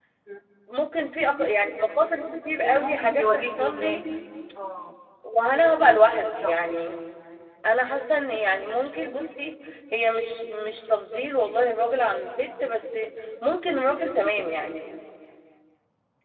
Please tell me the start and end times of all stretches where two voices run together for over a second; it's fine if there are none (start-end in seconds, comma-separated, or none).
2.6-4.0